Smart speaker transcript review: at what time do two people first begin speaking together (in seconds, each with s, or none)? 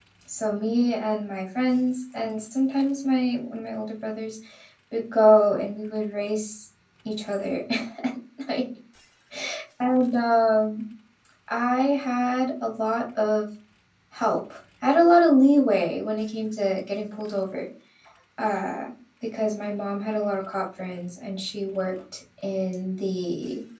none